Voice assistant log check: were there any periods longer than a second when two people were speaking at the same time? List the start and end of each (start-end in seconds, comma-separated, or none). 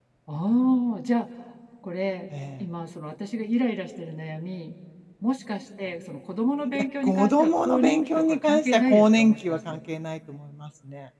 6.7-9.8